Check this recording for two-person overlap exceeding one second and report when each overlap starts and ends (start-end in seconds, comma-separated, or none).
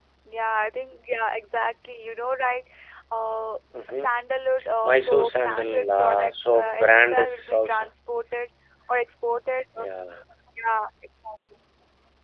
4.8-7.9